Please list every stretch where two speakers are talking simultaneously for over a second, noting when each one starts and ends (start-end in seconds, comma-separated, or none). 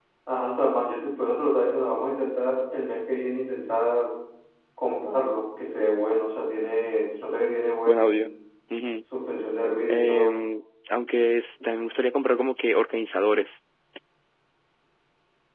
none